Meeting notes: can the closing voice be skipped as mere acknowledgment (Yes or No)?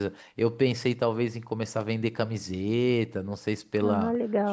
Yes